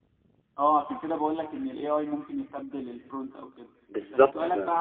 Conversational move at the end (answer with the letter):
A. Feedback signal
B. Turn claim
A